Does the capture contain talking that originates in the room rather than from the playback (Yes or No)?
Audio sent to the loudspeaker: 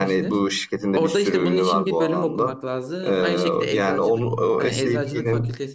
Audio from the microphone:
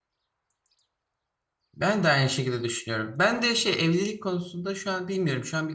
Yes